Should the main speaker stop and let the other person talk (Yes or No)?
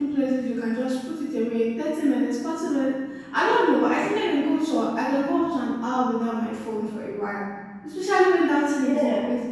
No